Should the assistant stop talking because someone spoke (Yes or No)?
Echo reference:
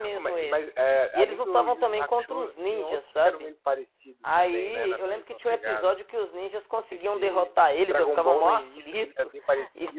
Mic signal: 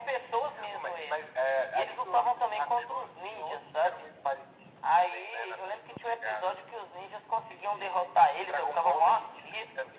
No